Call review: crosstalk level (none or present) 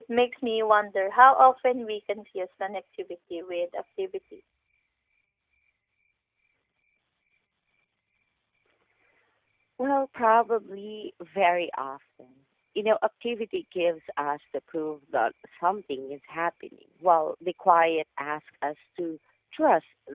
none